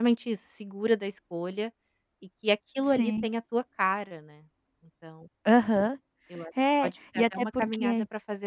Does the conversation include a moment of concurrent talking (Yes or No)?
Yes